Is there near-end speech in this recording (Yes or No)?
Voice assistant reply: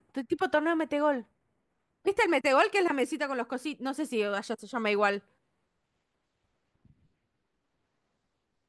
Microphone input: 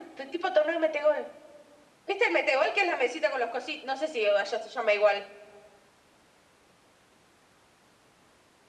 No